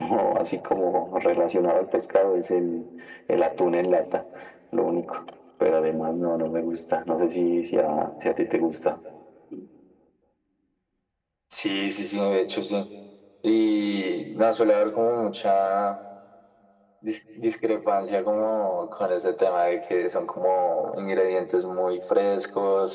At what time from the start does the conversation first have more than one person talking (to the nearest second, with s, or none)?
none